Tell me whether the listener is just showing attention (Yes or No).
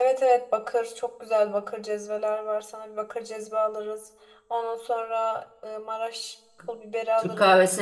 No